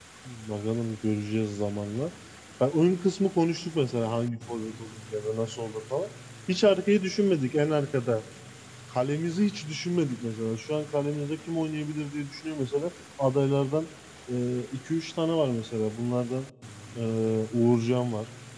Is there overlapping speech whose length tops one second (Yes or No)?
No